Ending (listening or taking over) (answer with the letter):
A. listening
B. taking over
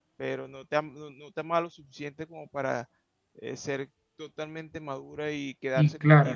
A